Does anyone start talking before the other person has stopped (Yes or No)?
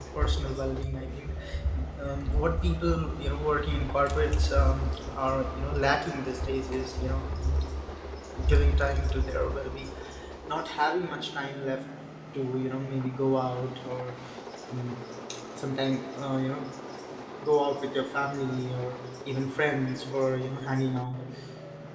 No